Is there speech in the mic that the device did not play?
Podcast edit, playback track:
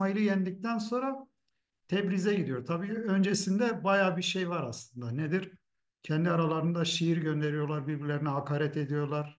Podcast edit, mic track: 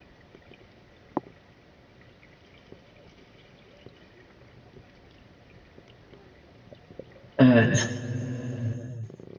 Yes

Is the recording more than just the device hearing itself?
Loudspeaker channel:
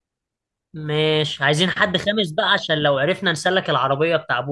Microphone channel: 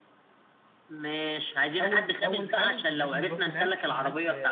Yes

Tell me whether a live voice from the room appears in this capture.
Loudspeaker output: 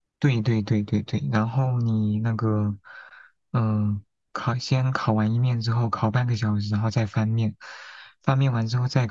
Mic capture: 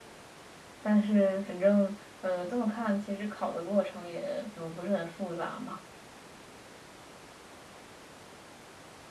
Yes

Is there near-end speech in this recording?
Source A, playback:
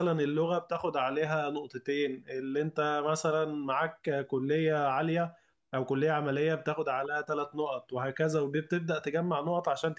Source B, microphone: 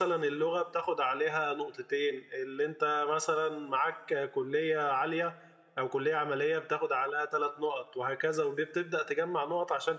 No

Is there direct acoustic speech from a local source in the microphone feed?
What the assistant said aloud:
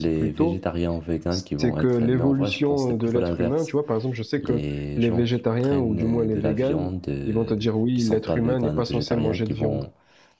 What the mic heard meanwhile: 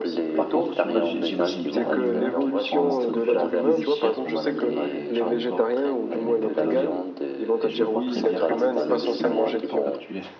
Yes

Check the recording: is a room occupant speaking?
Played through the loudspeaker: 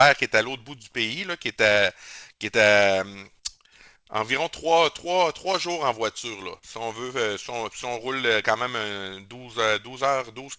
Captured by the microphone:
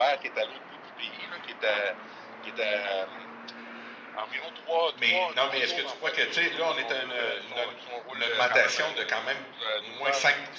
Yes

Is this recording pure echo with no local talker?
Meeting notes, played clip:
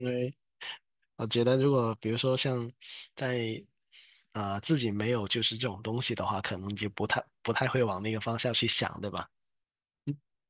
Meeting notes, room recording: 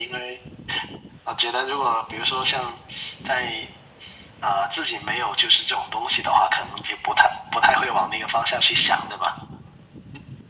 Yes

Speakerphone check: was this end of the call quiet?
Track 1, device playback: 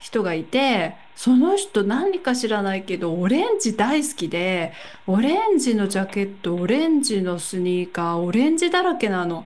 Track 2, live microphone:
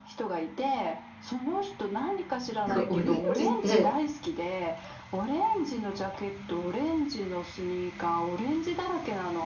No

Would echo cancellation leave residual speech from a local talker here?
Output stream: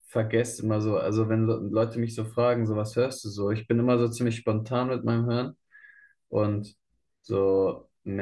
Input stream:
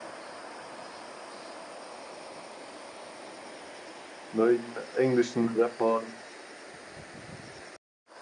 Yes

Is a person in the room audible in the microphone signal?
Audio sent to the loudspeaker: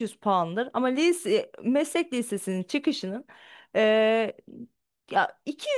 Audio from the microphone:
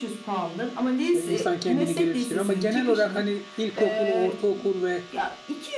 Yes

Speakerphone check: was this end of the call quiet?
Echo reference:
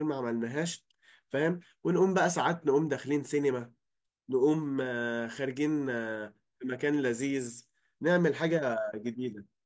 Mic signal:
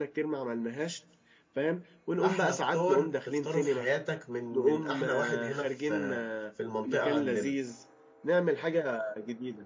No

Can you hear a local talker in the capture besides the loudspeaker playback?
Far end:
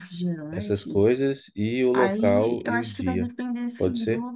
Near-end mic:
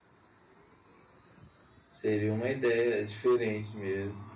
Yes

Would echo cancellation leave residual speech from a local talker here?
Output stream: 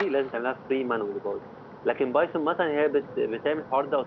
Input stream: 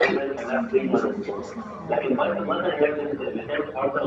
Yes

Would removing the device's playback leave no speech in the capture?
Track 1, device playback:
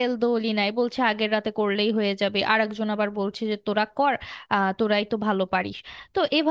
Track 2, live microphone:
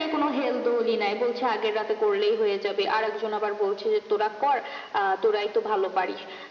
Yes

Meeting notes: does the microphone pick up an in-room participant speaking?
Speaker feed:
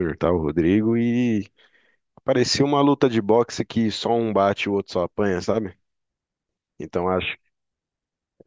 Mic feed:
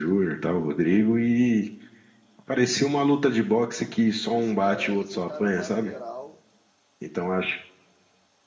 Yes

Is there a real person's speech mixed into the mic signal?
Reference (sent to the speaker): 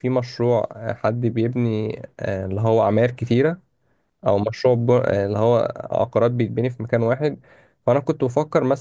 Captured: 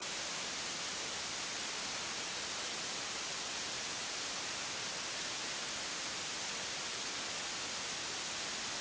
No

